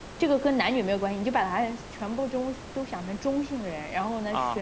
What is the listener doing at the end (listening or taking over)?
listening